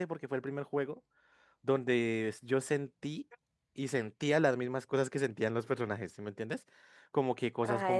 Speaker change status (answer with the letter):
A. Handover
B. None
B